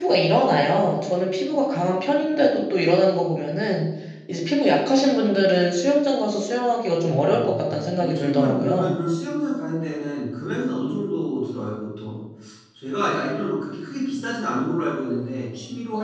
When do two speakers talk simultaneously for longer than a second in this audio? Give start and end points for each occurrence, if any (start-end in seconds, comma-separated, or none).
7.2-9.0